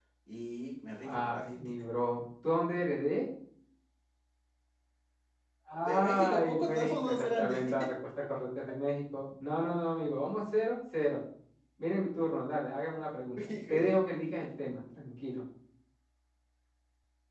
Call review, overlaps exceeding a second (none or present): present